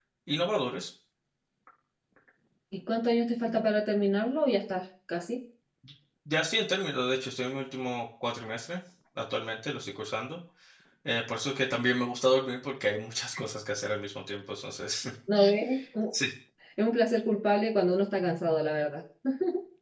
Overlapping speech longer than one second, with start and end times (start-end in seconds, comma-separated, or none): none